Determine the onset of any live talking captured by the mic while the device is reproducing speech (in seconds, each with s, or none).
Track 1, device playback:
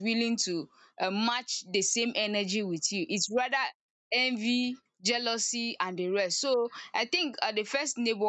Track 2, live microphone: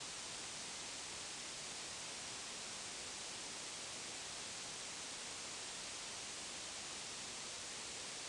none